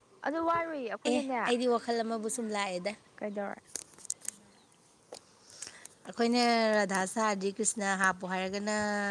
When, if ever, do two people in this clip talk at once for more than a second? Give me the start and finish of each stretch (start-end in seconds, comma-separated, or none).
none